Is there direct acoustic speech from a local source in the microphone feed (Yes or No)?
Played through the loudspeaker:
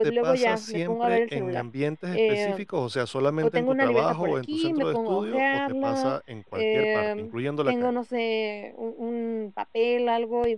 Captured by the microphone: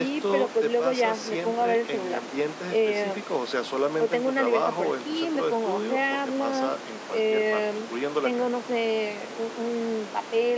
No